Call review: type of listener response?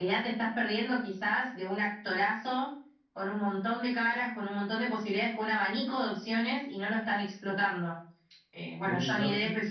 listening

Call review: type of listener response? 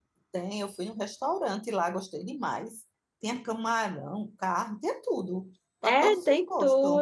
taking over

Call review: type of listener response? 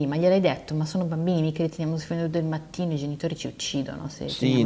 taking over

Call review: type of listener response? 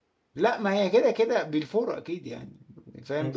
listening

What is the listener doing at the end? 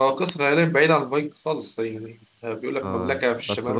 taking over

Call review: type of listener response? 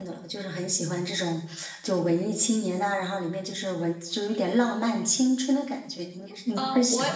taking over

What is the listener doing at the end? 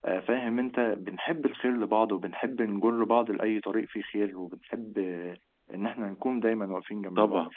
listening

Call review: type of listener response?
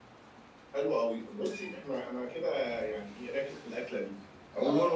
listening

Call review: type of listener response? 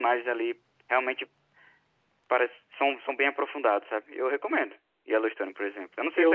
taking over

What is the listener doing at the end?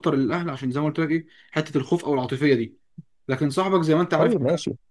listening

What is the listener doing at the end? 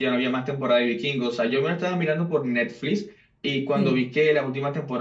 listening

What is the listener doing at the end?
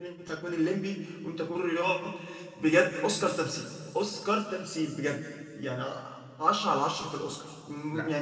listening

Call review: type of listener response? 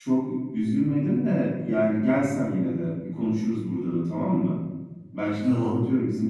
listening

